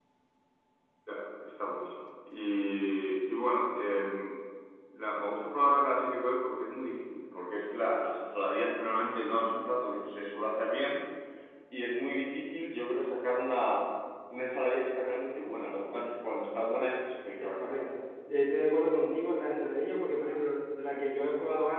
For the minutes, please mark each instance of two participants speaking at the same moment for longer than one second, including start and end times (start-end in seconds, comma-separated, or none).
none